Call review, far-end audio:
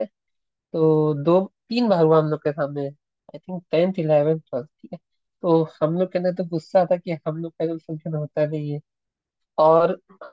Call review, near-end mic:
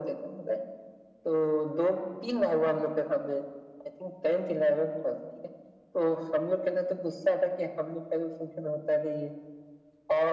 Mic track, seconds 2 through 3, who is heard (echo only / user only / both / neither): echo only